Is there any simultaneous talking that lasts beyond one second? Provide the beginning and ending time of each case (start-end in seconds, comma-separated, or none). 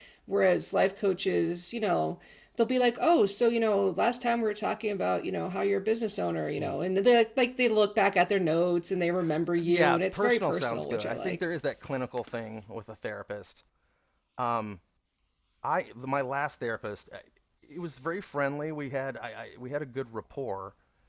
9.7-11.4